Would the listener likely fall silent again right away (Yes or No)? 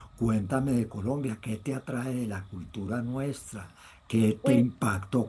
Yes